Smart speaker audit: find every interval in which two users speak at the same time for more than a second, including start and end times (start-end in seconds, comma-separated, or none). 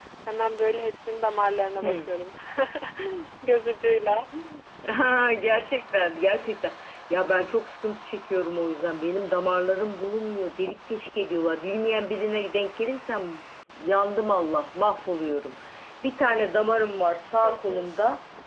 none